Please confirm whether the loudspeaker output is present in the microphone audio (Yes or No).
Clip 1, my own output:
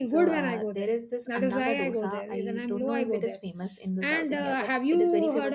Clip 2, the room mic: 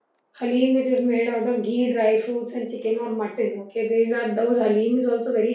No